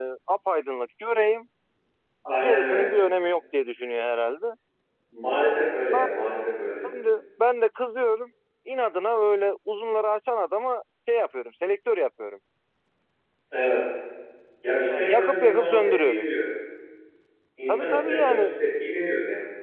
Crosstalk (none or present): present